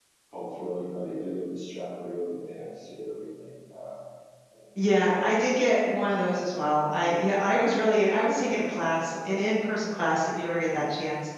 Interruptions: none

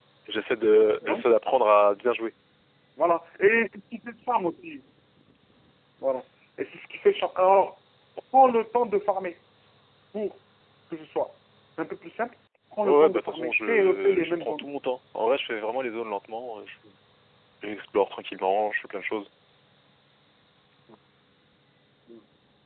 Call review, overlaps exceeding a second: present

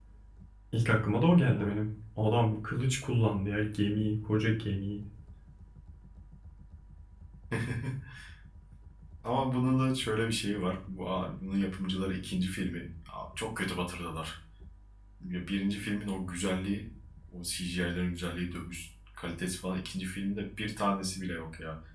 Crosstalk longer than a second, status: none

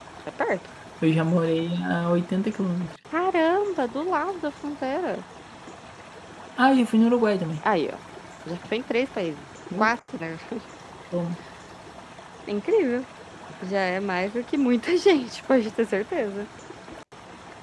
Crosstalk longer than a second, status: none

